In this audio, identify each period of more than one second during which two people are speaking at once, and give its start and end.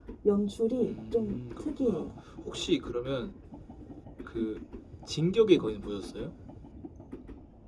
0.8-2.1

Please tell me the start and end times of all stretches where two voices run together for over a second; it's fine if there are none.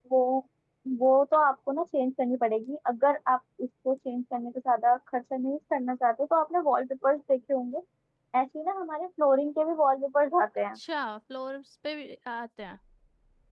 none

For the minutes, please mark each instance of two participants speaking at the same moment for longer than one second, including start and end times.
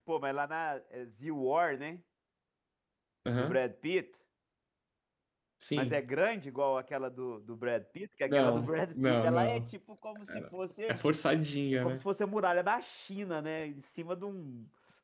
8.3-9.6

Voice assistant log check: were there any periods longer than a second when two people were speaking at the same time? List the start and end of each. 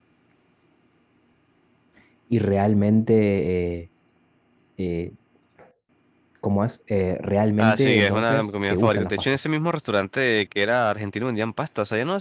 7.6-9.4

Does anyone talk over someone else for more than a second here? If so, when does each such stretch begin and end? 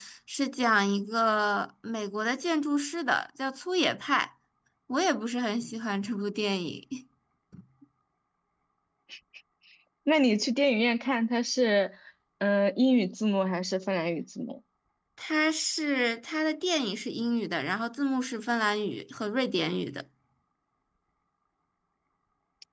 none

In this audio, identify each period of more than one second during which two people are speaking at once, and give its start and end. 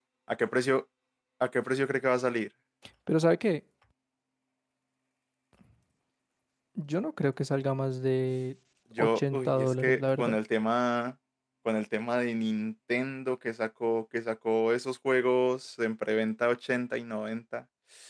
9.0-10.4

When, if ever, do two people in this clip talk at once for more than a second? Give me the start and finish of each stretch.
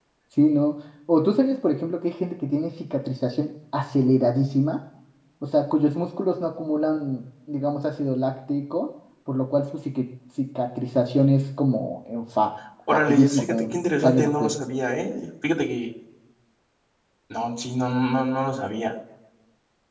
12.9-14.6

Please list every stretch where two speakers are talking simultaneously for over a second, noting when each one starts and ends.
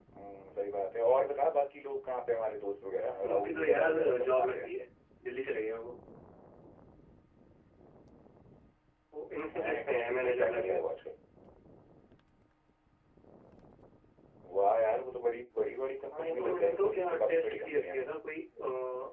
3.3-4.7, 9.4-10.8, 16.1-18.1

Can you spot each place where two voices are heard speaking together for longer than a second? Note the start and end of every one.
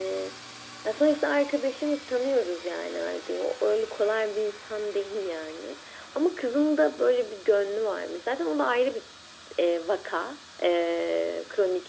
none

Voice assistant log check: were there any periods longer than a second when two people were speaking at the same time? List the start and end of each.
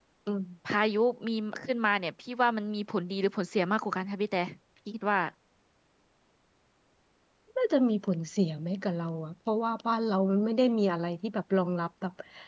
none

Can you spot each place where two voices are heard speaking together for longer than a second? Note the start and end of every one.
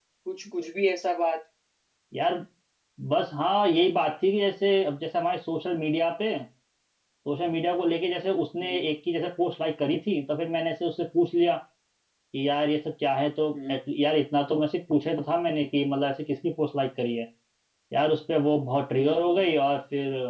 none

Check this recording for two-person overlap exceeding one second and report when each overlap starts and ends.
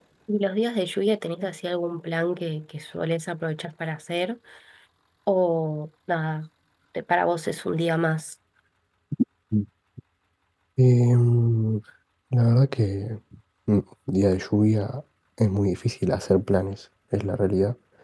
none

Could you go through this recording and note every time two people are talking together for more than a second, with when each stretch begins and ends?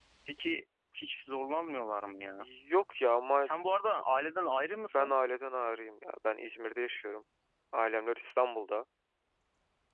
none

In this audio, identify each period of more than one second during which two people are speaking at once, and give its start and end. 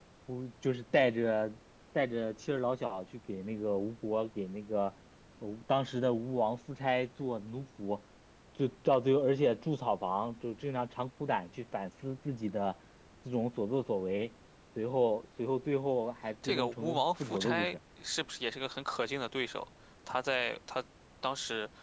16.4-17.8

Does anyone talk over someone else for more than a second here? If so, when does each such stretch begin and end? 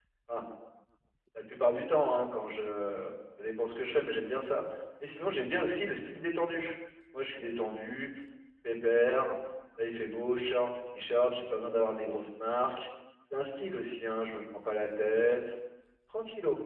none

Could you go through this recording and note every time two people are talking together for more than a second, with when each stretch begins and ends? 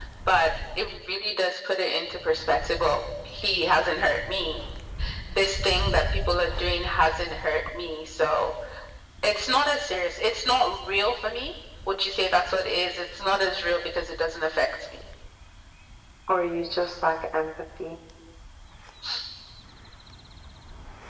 none

